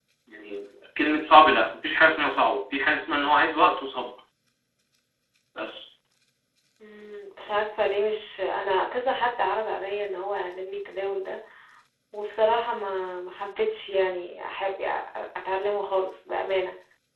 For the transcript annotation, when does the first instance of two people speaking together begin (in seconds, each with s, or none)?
none